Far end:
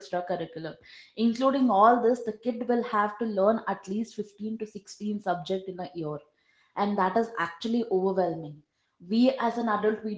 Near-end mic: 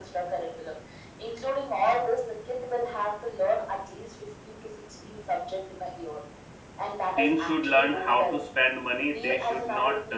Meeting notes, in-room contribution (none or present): present